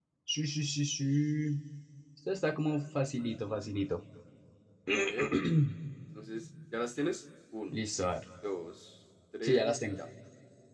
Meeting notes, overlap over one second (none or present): none